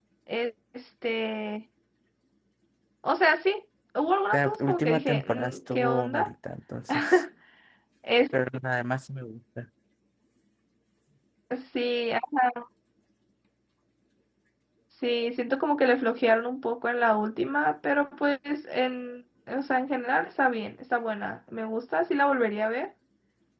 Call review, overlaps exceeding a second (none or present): present